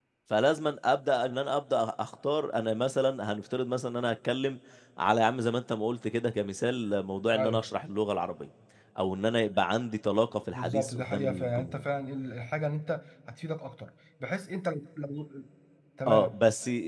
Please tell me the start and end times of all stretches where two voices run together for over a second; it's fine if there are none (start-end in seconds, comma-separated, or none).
10.5-11.8